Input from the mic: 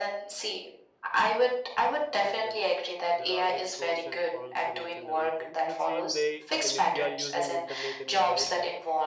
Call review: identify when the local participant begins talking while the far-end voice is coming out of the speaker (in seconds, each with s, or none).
2.1 s